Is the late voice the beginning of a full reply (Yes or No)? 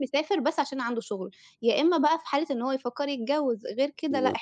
No